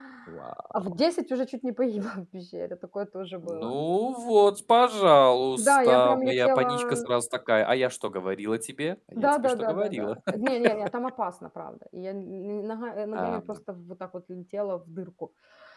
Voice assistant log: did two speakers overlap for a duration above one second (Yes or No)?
Yes